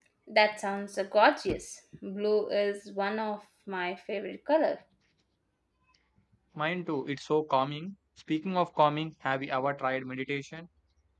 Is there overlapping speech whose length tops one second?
No

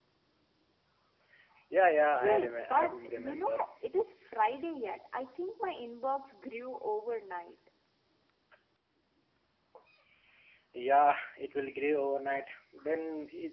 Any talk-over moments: Yes, from 2.2 s

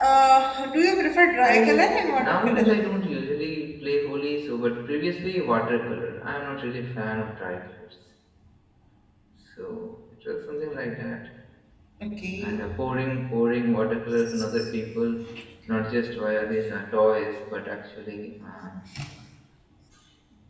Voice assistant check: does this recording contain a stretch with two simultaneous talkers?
Yes, from 1.4 s

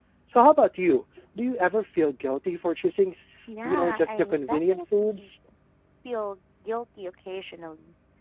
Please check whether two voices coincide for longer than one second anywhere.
Yes, from 3.5 s

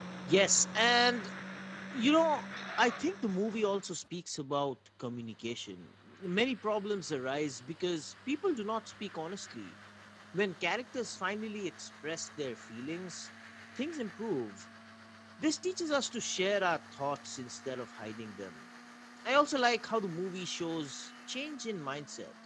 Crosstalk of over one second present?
No

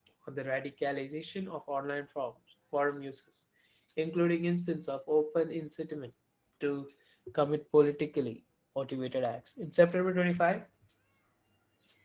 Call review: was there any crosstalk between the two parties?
No

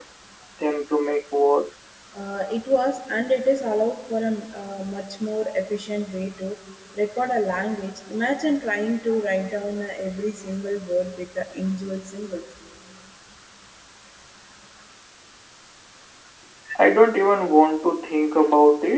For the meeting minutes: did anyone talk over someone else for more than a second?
No

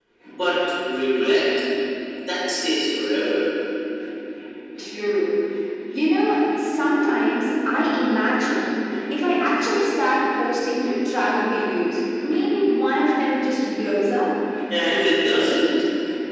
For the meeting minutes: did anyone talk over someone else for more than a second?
No

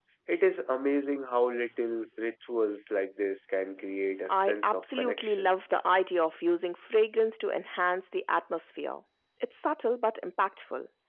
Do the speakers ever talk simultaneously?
Yes, from 4.3 s

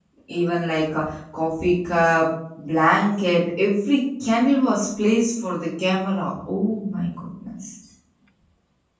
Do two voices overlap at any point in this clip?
No

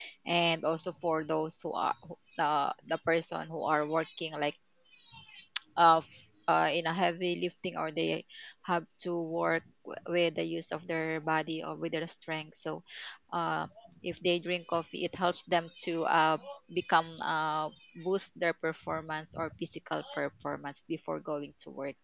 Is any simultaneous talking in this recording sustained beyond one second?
No

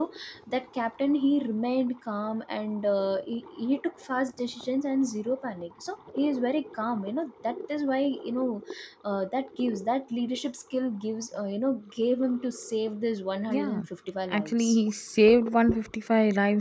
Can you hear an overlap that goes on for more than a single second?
No

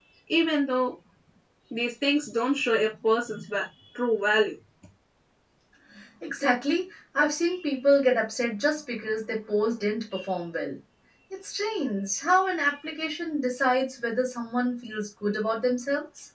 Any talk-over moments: No

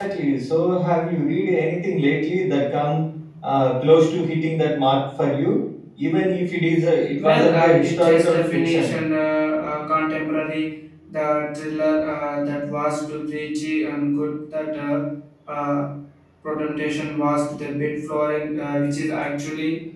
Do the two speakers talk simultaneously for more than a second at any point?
Yes, from 7.2 s

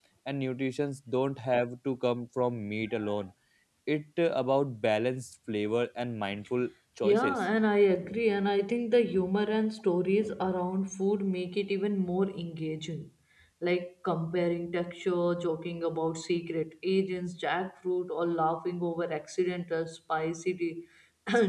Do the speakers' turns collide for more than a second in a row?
No

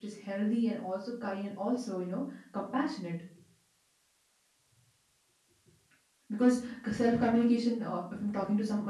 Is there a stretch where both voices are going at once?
No

